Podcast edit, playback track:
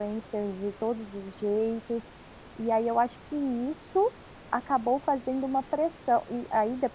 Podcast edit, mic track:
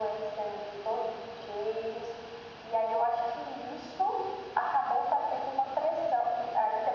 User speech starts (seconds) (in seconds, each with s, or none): none